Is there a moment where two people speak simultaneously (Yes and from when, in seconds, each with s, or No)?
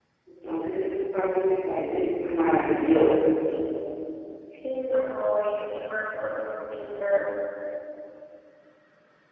No